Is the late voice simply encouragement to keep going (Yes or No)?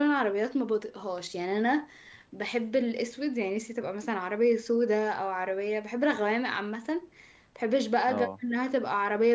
Yes